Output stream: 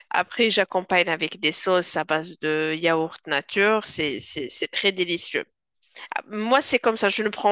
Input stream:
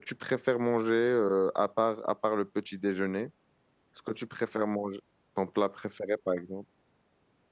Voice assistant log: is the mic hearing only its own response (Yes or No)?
No